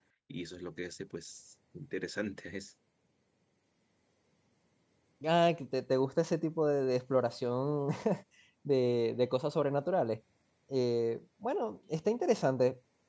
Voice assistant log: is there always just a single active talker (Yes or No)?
Yes